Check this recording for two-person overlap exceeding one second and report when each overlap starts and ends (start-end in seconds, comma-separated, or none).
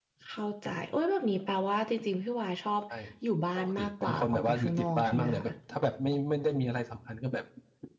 3.5-5.4